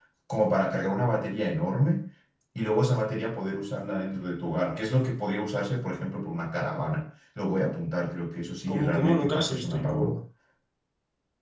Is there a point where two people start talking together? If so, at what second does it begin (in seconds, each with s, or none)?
8.7 s